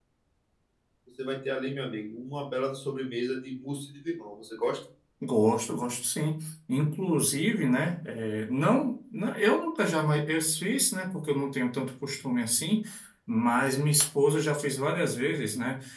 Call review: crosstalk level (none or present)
none